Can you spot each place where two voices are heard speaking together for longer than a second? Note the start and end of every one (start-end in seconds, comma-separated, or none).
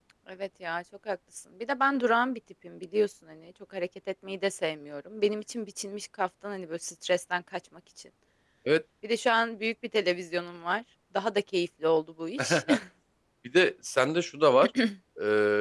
none